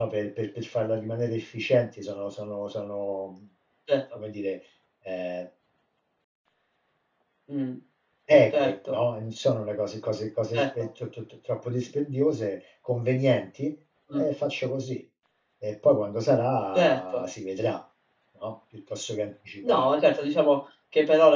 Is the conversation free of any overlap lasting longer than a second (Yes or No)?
Yes